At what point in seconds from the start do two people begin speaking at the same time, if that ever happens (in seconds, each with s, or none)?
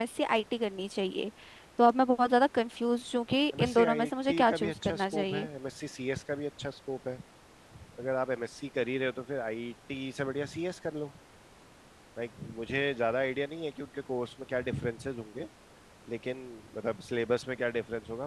3.5 s